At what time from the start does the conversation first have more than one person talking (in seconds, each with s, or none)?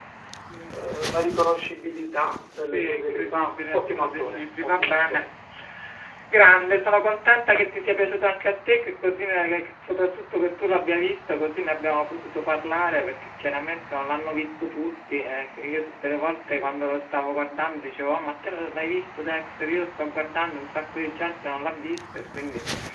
2.6 s